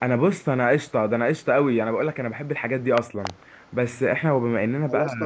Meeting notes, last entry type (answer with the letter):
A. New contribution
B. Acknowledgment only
A